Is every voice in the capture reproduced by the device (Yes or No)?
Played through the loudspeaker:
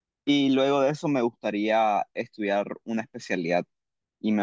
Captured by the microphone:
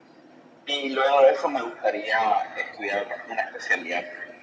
Yes